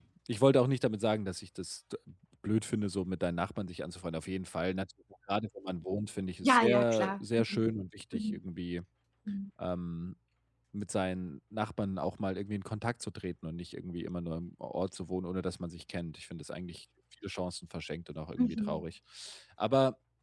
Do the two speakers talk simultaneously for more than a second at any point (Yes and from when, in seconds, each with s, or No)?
Yes, from 6.4 s